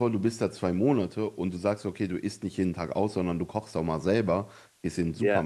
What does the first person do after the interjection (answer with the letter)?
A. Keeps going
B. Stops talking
A